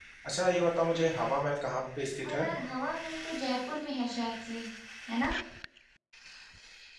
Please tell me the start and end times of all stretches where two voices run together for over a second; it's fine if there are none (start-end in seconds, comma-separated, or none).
none